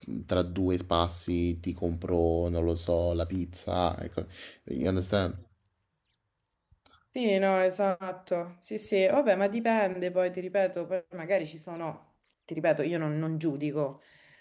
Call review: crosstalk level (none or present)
none